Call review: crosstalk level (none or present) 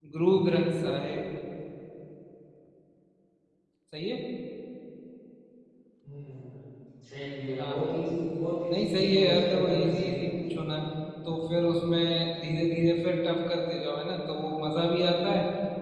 present